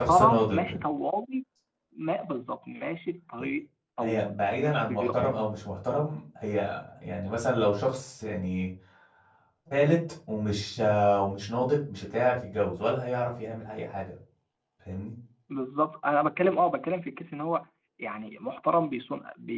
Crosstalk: present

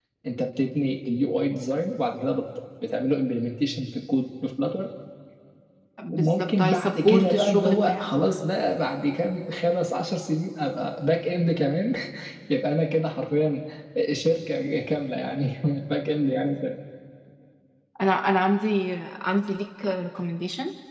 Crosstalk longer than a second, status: present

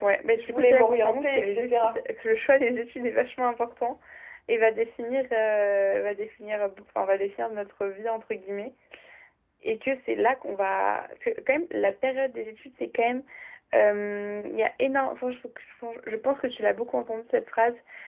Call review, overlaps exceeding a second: present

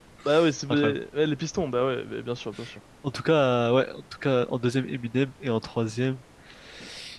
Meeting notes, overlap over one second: none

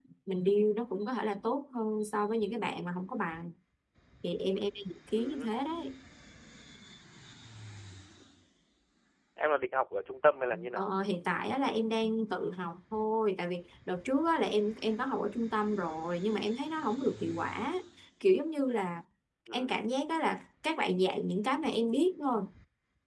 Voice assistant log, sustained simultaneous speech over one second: none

